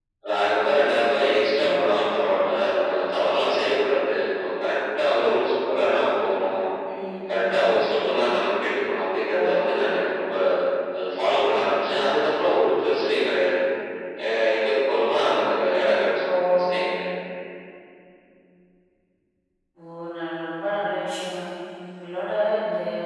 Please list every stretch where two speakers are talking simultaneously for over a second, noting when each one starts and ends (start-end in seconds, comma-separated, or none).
none